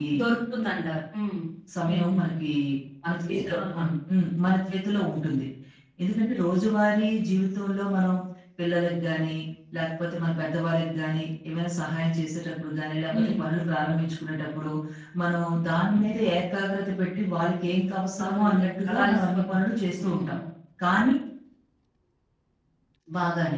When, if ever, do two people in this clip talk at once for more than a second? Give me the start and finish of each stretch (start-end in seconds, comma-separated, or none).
18.2-19.6